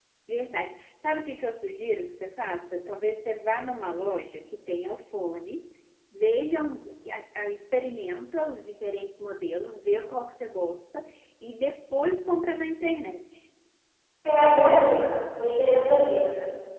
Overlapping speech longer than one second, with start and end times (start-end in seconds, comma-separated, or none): none